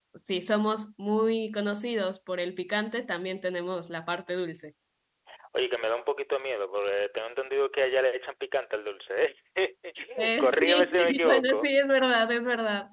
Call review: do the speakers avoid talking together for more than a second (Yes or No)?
No